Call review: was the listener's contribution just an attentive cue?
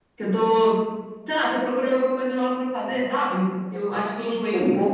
Yes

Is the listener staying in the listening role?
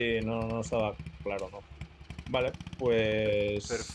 No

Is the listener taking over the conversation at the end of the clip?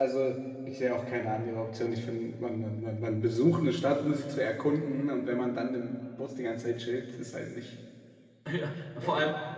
Yes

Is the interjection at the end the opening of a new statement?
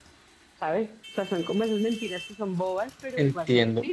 Yes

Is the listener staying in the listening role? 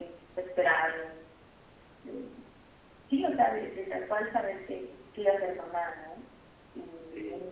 Yes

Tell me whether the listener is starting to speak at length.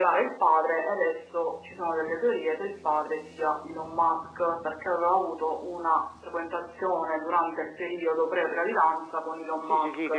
Yes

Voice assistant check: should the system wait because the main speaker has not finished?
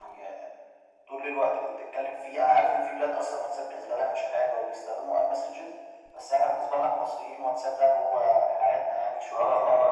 No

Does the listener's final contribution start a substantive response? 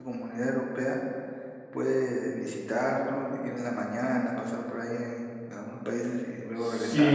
Yes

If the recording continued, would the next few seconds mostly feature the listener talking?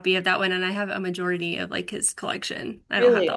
Yes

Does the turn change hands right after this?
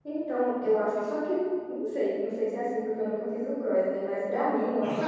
No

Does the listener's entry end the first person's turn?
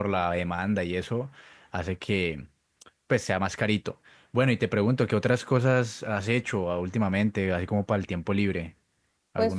Yes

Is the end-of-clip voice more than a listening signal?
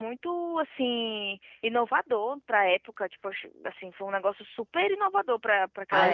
Yes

